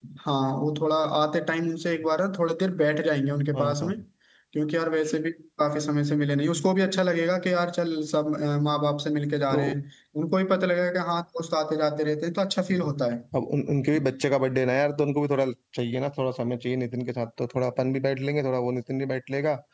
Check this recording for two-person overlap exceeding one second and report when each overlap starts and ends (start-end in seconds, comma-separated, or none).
none